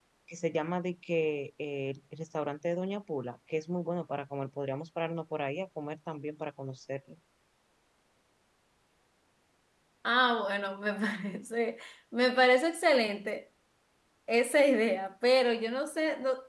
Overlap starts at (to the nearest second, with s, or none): none